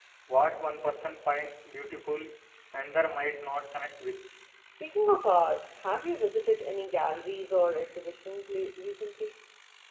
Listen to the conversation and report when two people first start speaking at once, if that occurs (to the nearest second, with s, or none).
none